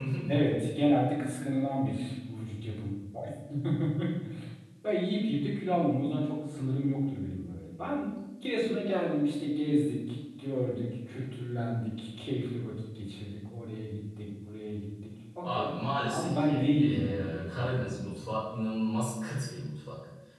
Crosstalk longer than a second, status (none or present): present